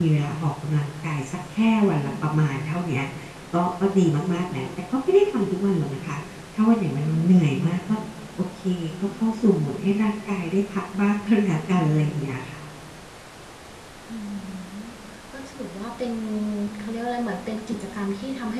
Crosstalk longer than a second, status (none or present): none